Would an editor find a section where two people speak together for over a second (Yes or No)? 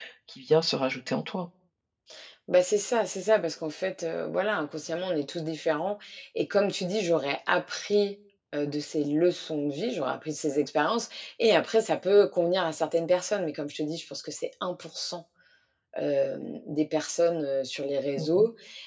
No